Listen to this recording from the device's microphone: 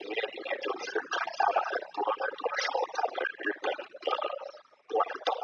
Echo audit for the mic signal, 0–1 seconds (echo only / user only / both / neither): echo only